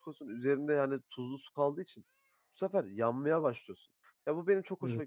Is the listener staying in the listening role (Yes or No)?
Yes